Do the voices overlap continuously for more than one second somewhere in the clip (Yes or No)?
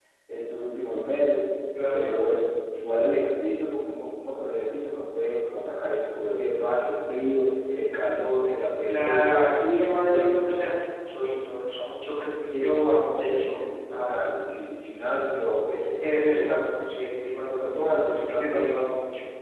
Yes